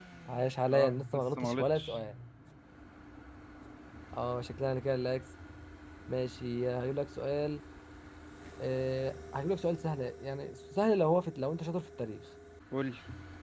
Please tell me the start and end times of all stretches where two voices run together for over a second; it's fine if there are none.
0.7-2.0

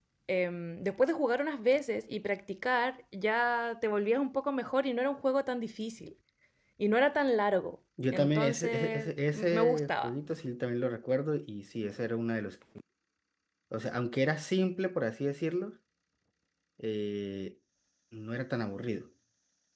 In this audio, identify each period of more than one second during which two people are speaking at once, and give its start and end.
8.1-10.1

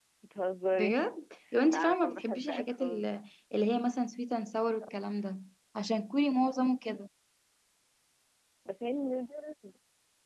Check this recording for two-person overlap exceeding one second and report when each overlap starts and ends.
1.7-3.0

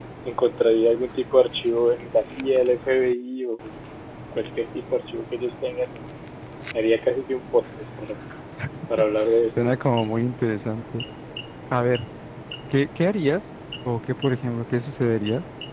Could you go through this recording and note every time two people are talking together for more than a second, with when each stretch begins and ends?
none

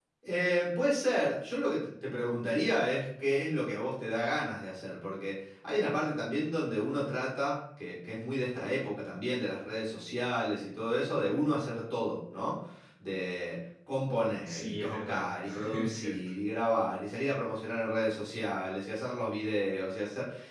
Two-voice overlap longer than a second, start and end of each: 14.4-16.1

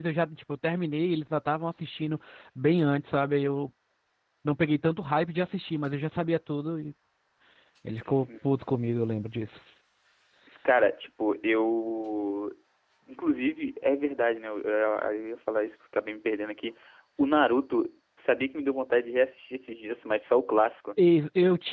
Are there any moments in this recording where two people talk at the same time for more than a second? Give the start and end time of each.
none

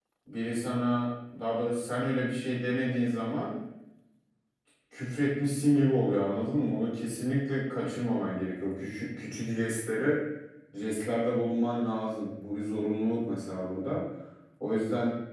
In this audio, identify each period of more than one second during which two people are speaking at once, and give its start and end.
none

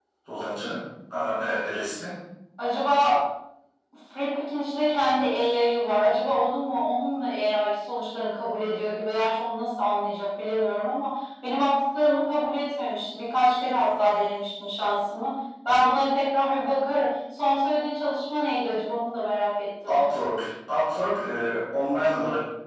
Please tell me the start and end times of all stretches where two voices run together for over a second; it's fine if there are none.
none

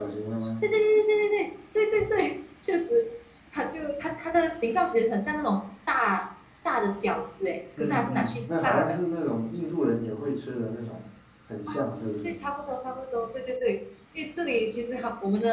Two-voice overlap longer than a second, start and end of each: 7.8-9.0

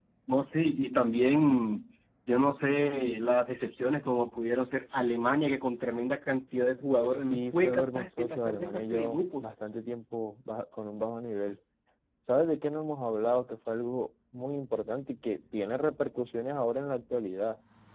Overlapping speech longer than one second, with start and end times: 7.0-9.5

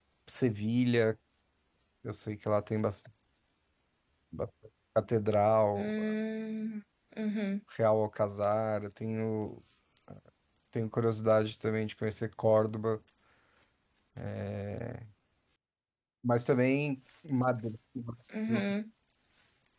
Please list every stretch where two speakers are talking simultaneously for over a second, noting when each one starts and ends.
none

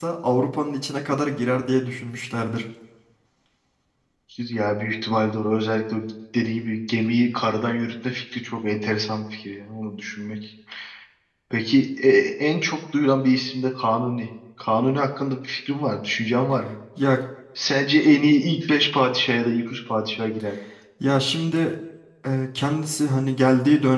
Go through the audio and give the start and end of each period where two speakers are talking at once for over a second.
none

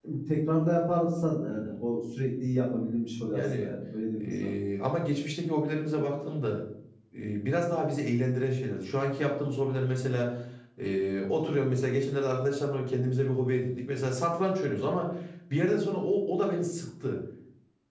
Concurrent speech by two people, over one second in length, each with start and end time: none

